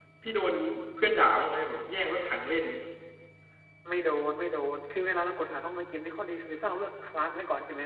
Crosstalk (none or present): none